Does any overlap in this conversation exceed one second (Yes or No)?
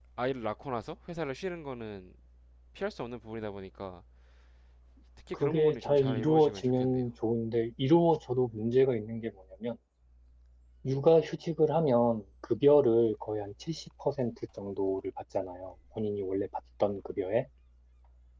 Yes